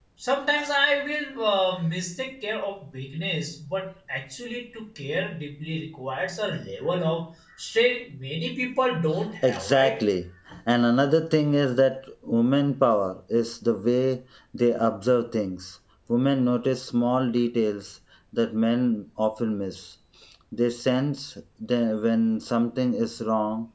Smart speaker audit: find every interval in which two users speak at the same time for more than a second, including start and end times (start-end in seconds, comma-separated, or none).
none